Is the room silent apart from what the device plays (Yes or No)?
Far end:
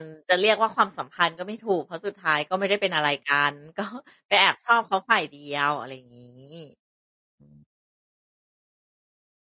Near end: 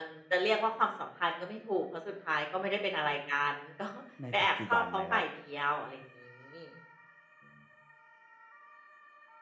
No